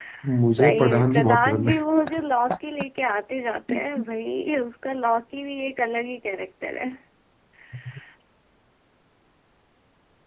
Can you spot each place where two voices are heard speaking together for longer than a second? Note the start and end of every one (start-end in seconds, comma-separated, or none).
0.6-1.8